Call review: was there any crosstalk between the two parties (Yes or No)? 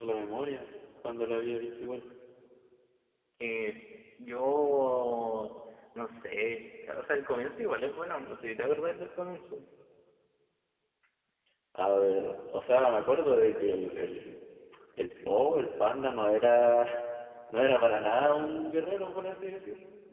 No